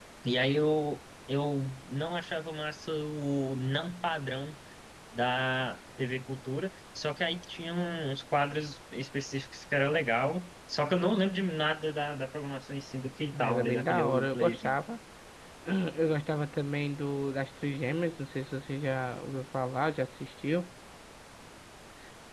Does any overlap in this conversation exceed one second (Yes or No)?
Yes